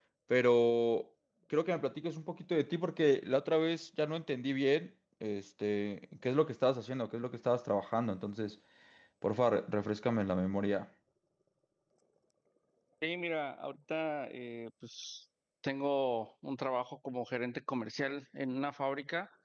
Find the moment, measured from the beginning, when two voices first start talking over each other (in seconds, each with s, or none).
none